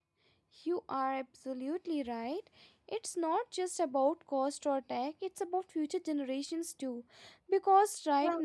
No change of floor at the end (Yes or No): Yes